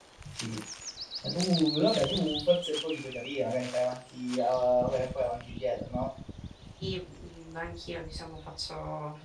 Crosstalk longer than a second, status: none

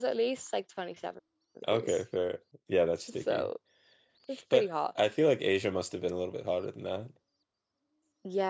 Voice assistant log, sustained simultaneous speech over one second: none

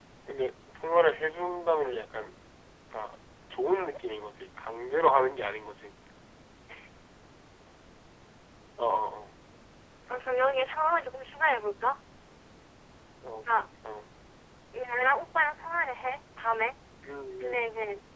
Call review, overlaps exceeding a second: none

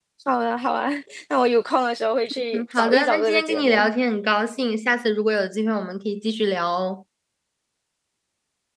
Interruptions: present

